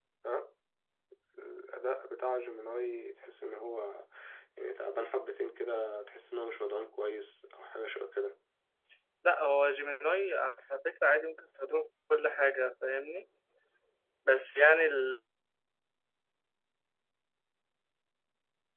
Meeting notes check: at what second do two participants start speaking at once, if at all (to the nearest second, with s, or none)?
none